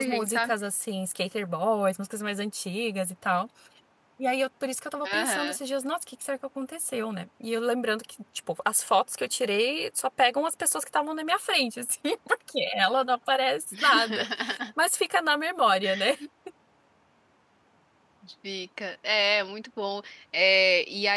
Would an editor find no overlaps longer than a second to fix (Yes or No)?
Yes